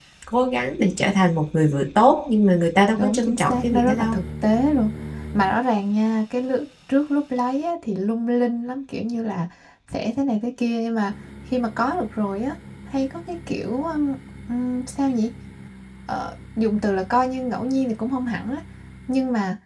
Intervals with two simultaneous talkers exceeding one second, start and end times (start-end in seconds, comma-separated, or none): 3.0-4.2